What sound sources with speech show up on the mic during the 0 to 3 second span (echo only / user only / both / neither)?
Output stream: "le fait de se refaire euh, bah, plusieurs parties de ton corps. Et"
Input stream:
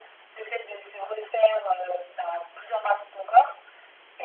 echo only